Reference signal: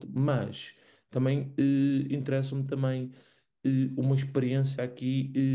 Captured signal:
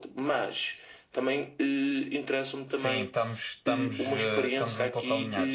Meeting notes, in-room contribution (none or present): present